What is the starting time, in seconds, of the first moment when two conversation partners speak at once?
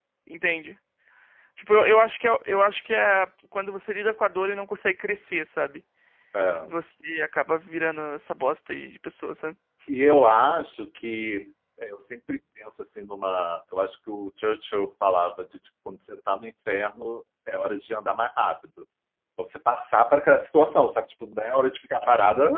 none

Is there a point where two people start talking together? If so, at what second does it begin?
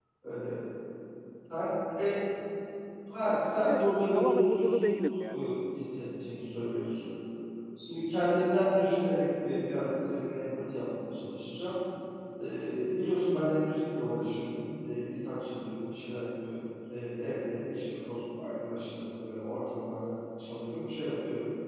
4 s

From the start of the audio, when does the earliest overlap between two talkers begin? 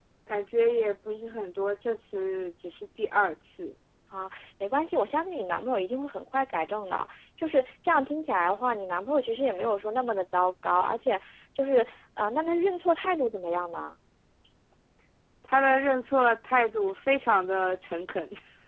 none

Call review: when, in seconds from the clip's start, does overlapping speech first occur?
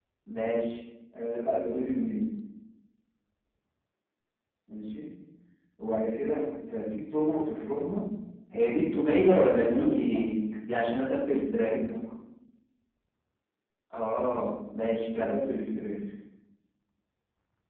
9 s

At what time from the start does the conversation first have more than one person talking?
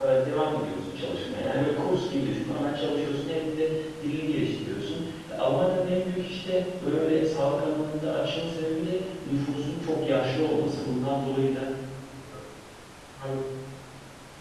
none

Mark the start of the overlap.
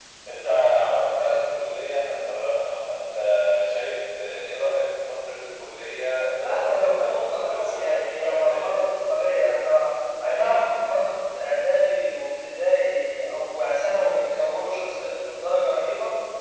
6 s

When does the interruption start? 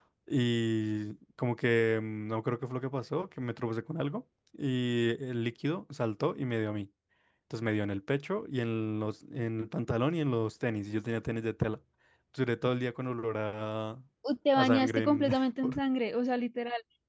15 s

